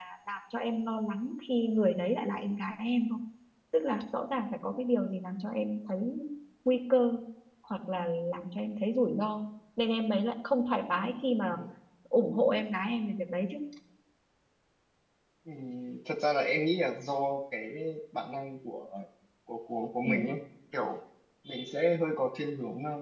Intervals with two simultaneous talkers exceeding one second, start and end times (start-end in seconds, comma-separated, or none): none